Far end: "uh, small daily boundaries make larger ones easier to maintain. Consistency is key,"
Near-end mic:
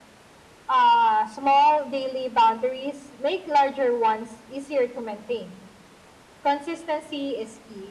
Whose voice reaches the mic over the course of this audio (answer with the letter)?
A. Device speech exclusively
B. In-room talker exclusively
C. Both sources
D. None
A